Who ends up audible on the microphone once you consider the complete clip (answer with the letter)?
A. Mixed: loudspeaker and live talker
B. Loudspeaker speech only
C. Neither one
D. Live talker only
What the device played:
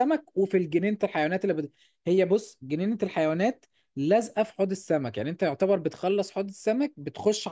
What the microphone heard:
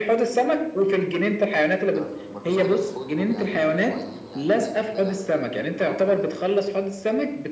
A